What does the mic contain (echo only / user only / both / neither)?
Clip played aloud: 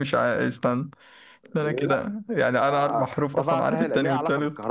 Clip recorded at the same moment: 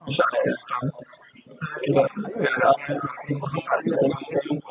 both